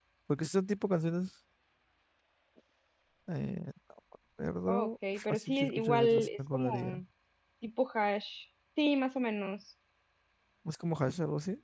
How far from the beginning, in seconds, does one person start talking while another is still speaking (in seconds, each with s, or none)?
4.7 s